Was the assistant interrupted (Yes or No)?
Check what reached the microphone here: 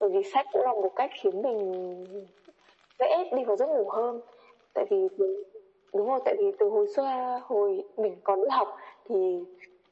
No